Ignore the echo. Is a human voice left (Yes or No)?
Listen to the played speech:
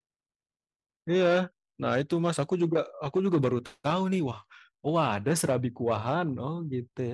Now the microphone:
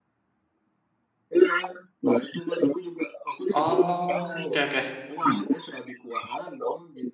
Yes